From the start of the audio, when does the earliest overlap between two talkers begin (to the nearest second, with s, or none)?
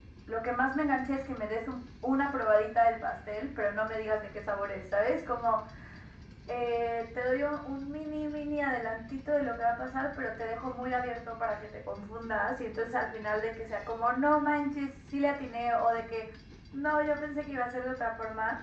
none